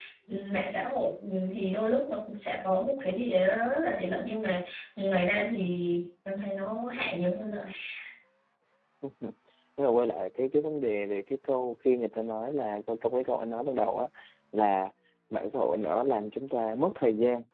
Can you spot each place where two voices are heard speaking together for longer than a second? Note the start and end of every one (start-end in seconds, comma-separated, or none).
none